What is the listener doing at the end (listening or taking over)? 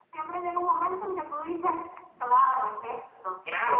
taking over